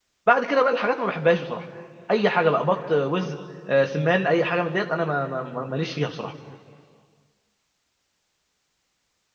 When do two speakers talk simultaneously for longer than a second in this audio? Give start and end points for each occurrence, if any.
none

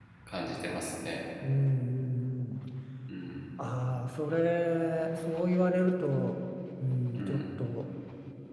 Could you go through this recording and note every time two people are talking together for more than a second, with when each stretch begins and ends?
none

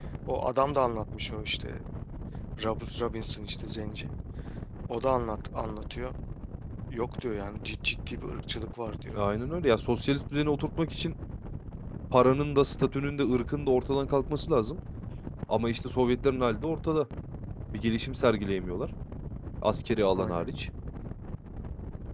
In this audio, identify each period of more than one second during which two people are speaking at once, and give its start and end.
none

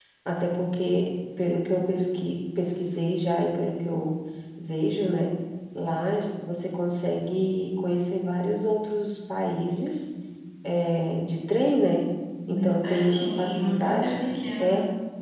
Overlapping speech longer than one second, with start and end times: 12.5-14.2

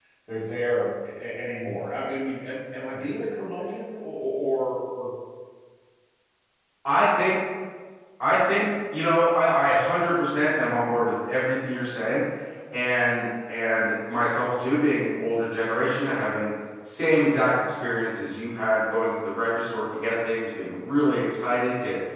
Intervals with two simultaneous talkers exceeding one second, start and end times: none

